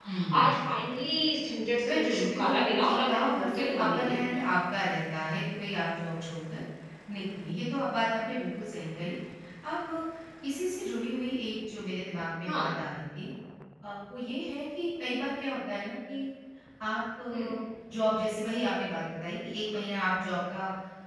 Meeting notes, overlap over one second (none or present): present